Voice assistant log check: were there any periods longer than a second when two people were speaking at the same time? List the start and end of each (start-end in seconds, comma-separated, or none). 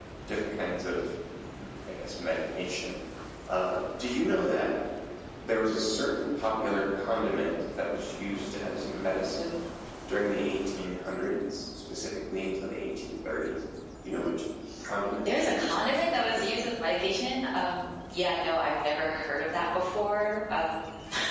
15.2-16.6